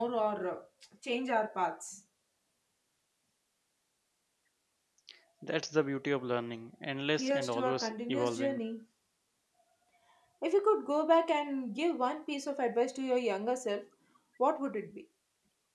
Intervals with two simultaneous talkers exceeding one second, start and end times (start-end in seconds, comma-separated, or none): 7.2-8.6